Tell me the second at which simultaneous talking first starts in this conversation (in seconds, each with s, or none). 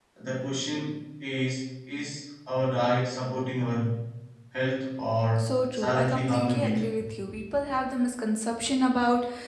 5.4 s